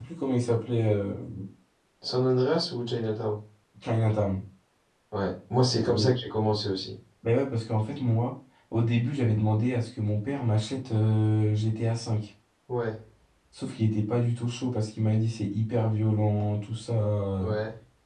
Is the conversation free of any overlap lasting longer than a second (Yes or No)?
Yes